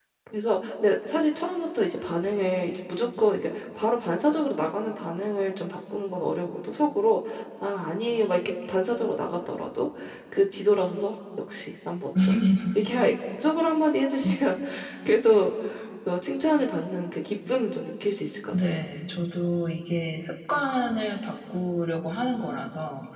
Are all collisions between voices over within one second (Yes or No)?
Yes